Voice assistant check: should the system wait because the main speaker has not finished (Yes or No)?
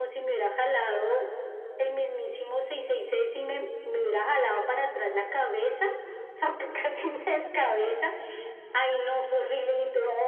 Yes